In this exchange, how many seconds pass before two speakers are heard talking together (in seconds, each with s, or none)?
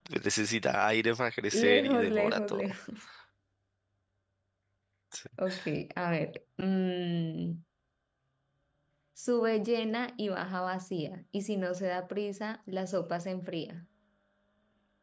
1.5 s